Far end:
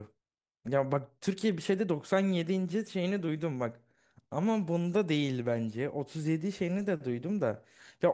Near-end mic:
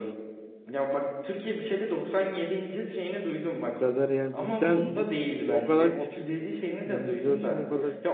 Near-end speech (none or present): present